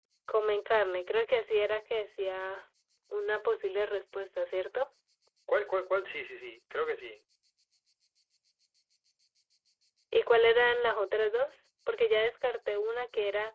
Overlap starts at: none

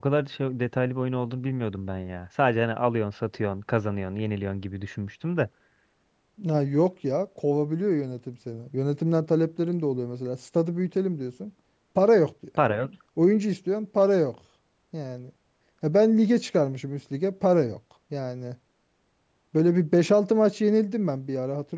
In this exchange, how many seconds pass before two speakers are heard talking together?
none

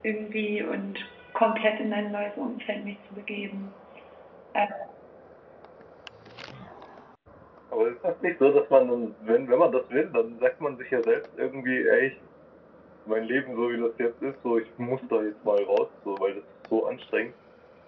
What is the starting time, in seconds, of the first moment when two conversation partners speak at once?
none

